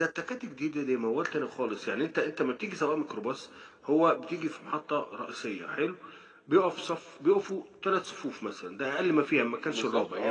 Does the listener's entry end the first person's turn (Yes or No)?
No